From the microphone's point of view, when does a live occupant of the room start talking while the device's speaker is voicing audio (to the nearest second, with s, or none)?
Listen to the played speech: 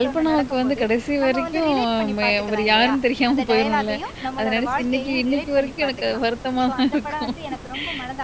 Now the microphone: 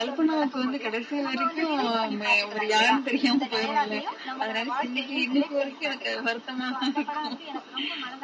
none